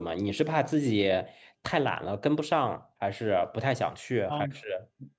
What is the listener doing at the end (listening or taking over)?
taking over